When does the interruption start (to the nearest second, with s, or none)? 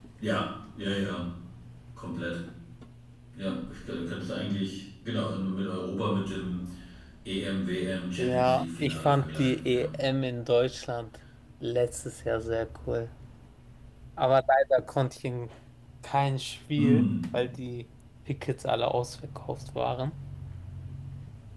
8 s